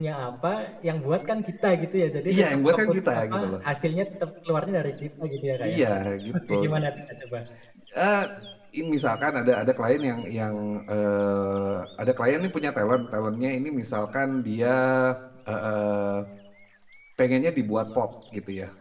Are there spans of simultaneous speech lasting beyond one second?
Yes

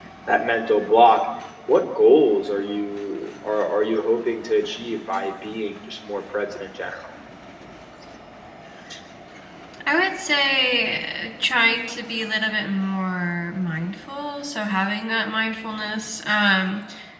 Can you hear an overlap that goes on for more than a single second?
No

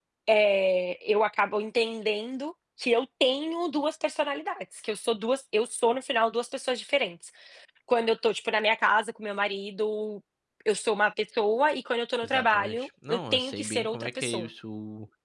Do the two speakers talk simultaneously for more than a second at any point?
Yes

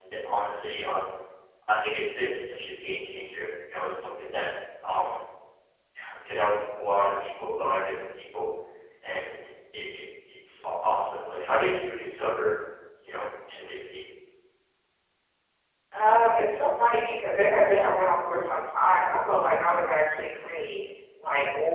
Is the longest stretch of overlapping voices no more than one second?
Yes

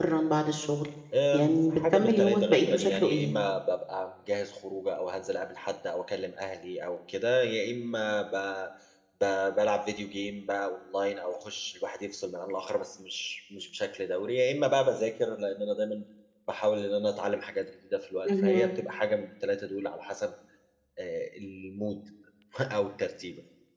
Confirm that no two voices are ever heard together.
No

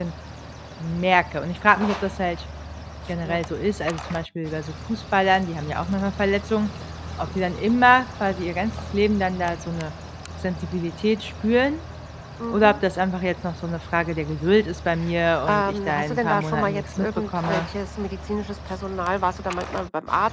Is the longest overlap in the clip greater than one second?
Yes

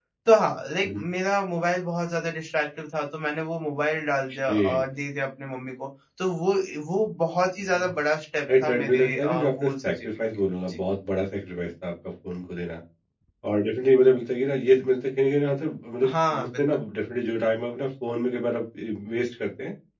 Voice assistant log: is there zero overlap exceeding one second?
No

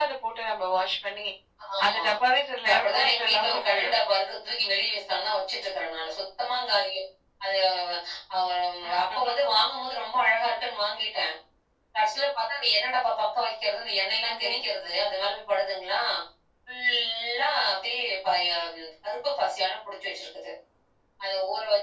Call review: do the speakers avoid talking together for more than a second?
No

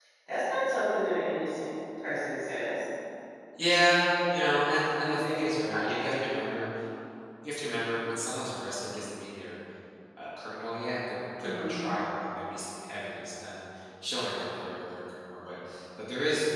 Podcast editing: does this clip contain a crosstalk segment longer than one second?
Yes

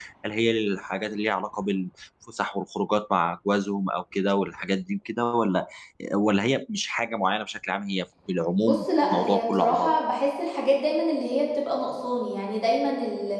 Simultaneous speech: Yes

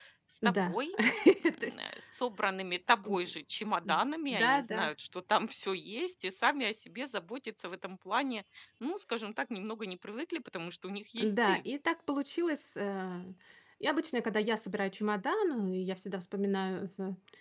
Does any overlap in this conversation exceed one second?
No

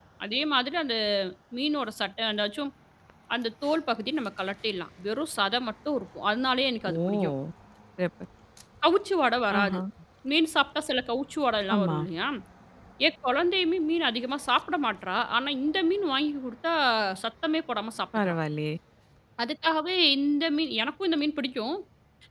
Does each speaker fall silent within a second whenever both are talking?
Yes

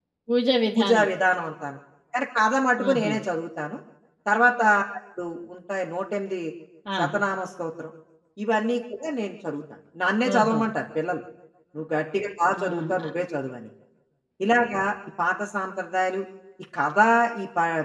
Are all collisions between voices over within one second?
Yes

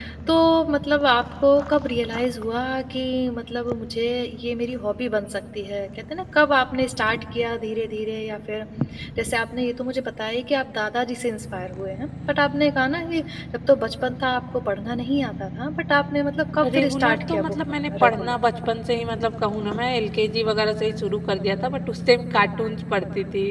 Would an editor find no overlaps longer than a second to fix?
No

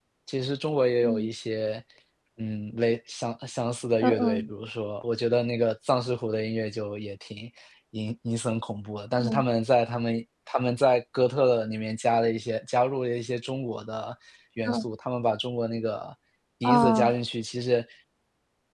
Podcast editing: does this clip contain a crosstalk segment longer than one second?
No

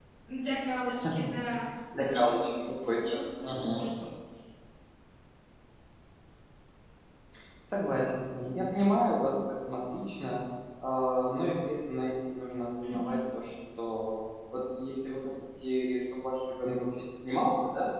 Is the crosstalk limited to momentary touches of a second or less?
No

